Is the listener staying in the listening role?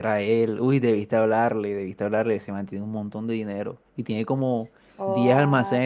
Yes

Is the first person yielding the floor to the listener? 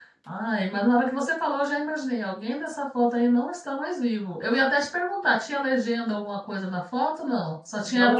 Yes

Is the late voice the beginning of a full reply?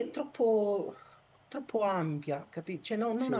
No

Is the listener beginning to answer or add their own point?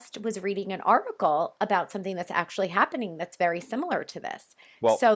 No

